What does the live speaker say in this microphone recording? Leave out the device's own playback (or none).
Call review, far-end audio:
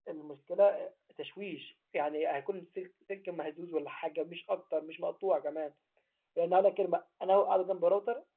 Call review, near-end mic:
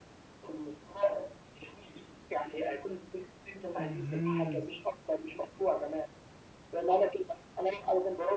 اها